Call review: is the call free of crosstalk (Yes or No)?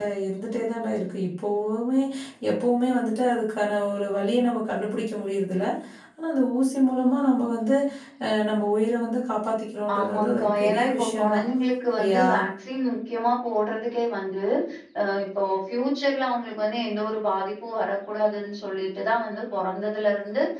No